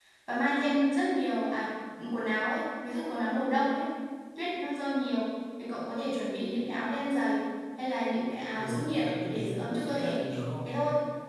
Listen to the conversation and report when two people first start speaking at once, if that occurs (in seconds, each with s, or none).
8.5 s